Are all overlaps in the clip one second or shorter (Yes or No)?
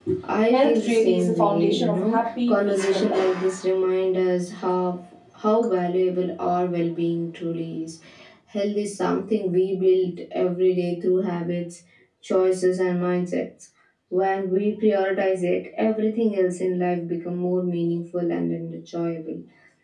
No